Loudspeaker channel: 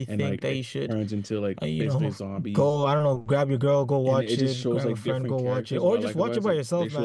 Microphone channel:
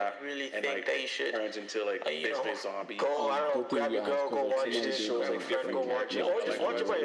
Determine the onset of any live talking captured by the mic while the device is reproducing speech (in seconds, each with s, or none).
3.1 s